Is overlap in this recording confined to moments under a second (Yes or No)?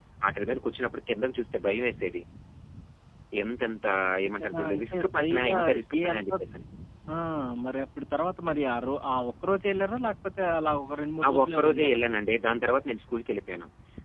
No